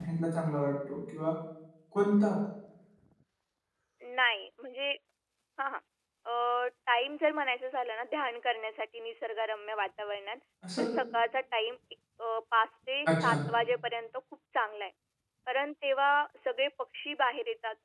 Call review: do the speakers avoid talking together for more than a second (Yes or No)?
Yes